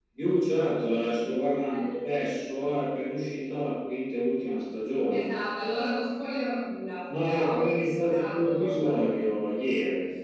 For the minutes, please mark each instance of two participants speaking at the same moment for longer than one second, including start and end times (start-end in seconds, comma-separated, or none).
7.2-8.7